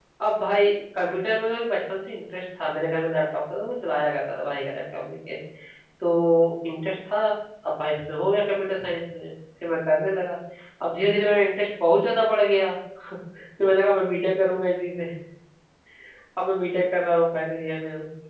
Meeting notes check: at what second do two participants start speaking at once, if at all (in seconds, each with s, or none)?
none